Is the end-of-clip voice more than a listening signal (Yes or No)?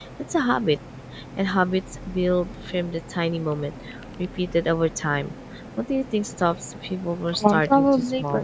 Yes